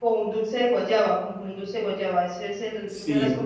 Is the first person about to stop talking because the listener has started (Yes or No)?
Yes